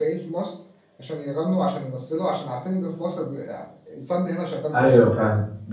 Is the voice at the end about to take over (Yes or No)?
Yes